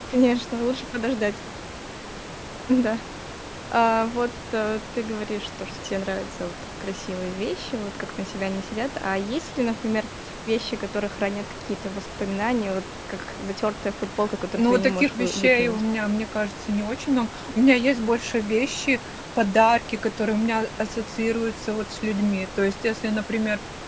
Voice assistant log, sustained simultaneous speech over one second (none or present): present